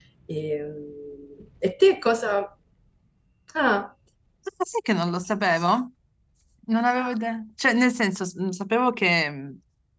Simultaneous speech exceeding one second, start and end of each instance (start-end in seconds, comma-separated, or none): none